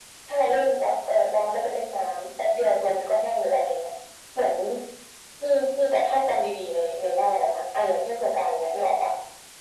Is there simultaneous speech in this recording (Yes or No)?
No